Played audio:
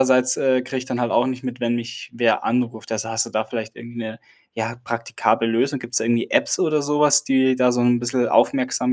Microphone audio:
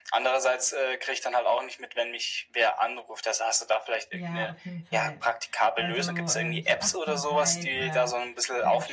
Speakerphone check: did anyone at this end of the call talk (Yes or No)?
Yes